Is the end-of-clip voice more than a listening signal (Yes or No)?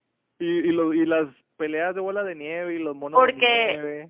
Yes